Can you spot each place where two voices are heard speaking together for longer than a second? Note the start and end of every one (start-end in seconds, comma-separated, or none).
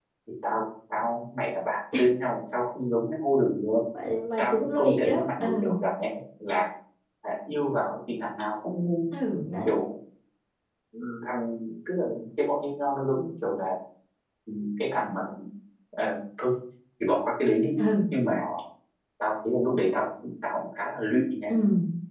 4.4-5.7